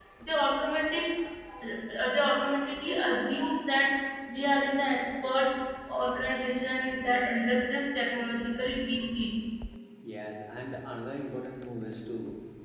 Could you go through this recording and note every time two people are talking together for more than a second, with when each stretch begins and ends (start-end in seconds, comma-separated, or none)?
none